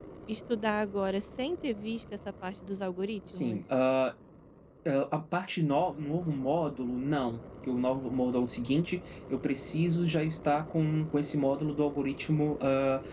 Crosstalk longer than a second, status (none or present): none